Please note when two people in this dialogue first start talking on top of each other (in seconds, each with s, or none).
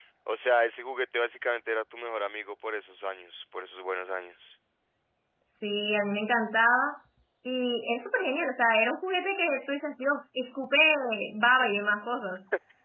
none